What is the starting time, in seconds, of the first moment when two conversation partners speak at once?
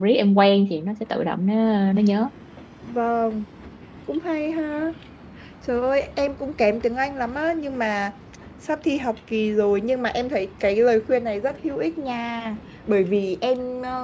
none

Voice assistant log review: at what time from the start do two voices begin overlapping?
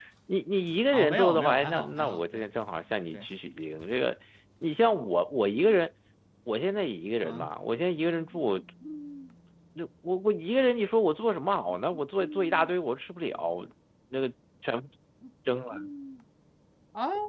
0.9 s

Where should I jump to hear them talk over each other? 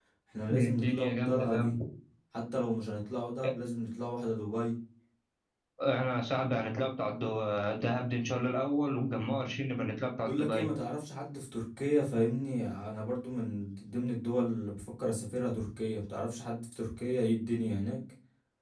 0.5 s

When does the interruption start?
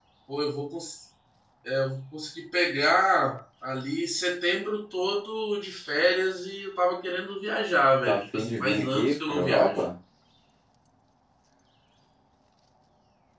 8.1 s

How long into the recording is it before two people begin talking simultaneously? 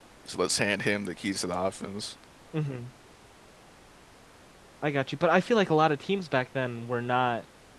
none

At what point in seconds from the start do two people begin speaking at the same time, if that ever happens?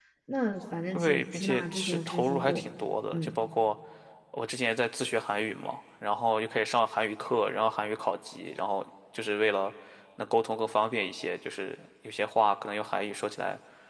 0.9 s

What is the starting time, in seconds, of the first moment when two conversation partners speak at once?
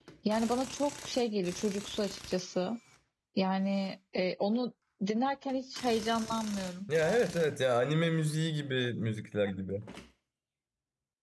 none

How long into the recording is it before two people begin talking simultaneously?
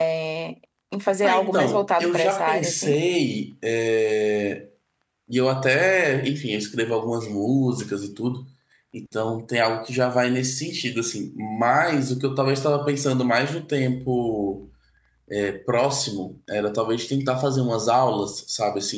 1.2 s

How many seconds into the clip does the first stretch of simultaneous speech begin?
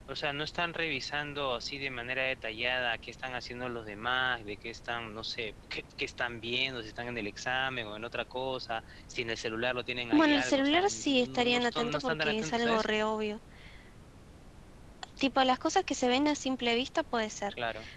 10.1 s

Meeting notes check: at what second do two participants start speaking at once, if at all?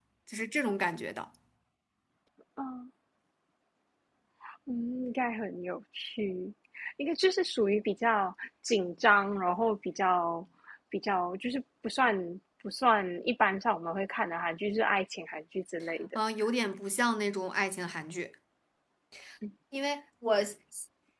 none

